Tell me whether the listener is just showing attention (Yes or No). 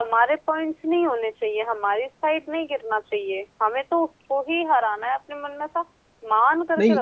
No